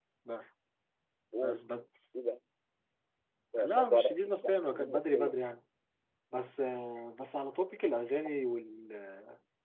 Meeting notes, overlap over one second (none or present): present